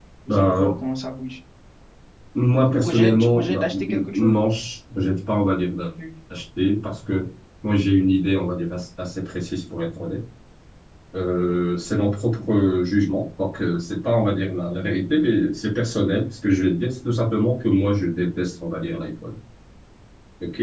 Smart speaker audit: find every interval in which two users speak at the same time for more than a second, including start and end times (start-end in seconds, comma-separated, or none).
2.7-4.4